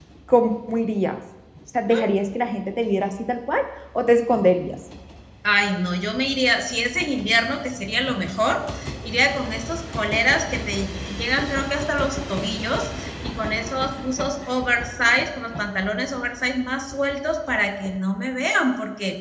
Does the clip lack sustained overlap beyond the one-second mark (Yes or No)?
Yes